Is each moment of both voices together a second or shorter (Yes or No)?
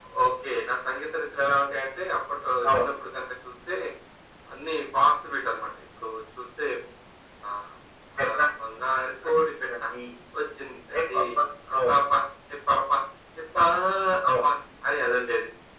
Yes